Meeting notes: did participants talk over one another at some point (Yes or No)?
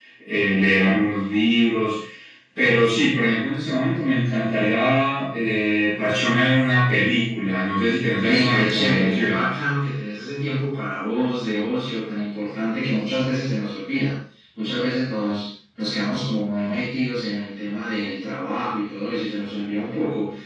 Yes